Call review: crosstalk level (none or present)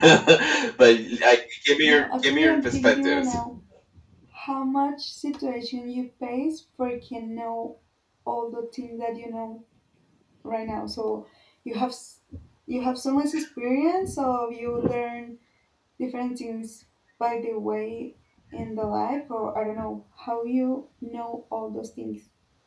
present